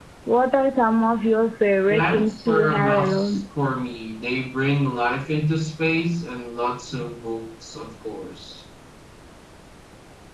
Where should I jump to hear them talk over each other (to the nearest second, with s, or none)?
2 s